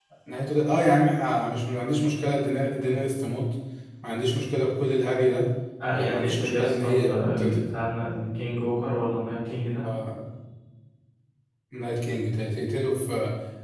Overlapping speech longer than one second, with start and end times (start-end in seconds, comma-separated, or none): 5.9-7.6